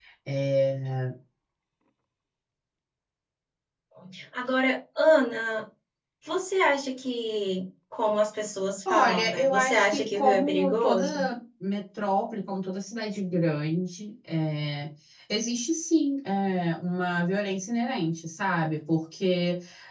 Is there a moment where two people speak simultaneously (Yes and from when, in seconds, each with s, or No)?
Yes, from 8.8 s